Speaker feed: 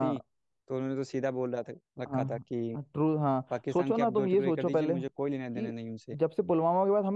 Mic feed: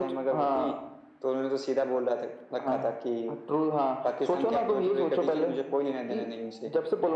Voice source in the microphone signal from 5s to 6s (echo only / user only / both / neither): echo only